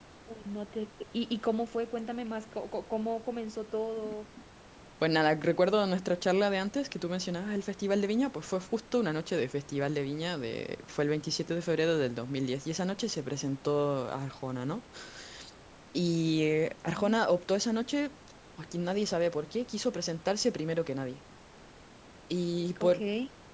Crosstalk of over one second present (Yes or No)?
No